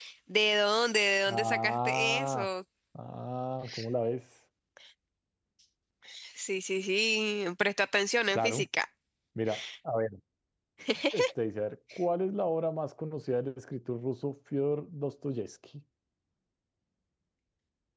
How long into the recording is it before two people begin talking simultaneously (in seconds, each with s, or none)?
1.3 s